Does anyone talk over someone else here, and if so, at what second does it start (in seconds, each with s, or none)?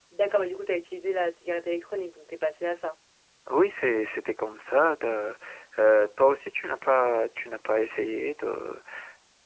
none